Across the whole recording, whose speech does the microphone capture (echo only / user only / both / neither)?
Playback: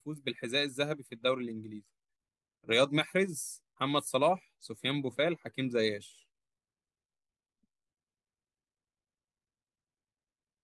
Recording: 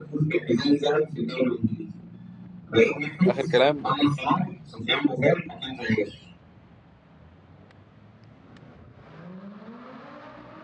both